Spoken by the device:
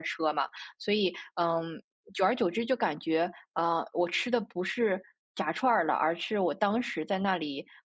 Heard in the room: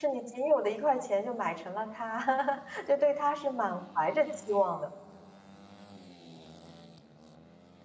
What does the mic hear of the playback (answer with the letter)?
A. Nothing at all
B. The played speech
A